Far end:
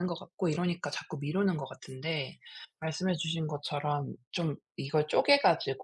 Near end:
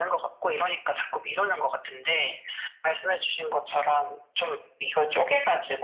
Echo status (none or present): present